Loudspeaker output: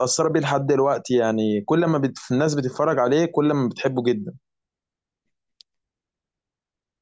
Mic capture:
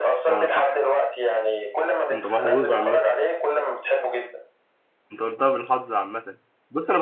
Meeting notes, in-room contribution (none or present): present